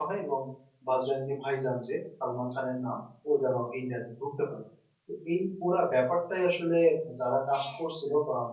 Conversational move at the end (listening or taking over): listening